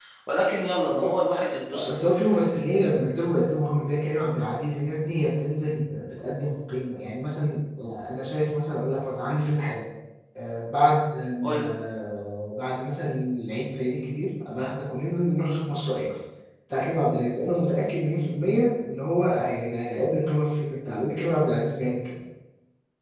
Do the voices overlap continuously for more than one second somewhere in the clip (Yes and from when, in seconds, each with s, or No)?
No